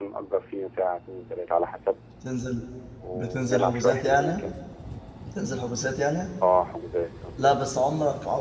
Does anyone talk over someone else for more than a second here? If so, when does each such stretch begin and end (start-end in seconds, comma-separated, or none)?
3.1-4.4